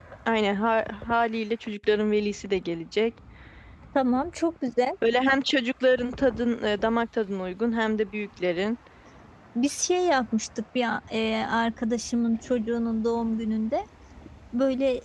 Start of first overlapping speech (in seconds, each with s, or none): none